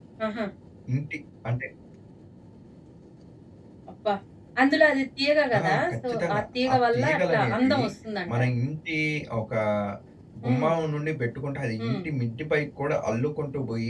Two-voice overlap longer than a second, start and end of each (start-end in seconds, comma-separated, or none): 5.6-7.8